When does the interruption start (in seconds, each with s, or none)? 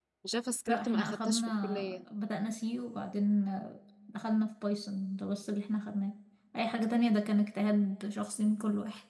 0.7 s